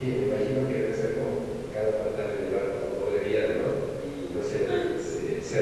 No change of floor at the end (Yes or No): Yes